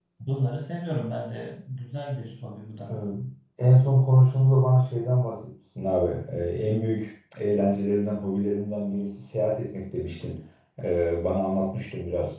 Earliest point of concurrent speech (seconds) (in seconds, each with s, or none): none